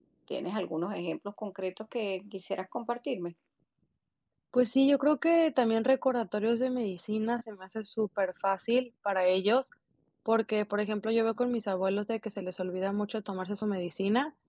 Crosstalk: none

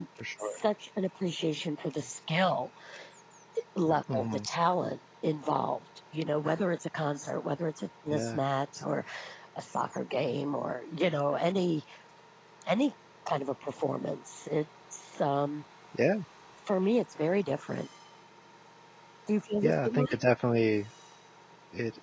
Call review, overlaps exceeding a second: none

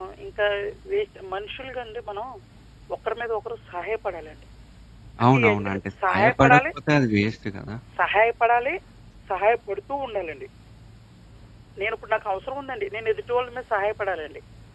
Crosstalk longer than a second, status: present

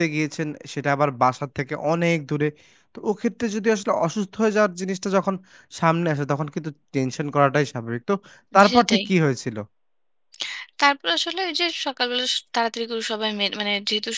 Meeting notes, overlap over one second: none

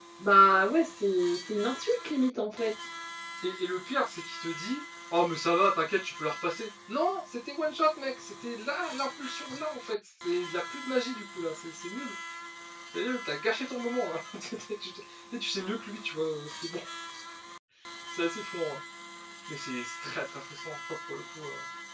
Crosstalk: none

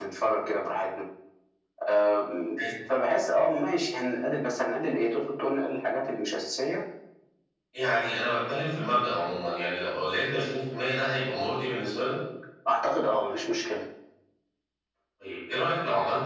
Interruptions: none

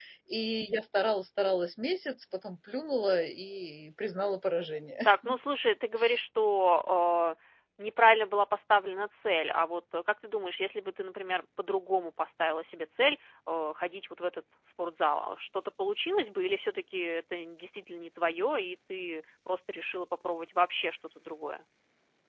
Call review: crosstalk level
none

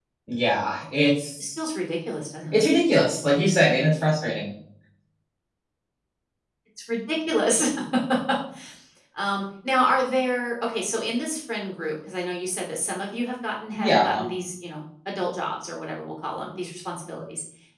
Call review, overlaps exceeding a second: none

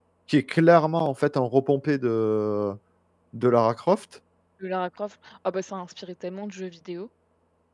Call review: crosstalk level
none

